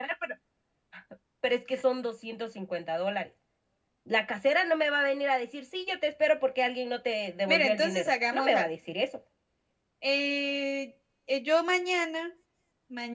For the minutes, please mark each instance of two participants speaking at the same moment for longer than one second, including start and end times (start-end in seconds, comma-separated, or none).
7.5-8.7